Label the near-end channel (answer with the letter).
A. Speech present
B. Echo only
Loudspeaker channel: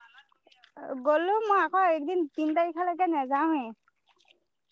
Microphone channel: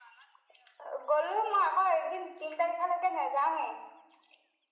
B